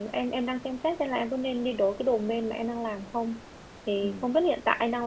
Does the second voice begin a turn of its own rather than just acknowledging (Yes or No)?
No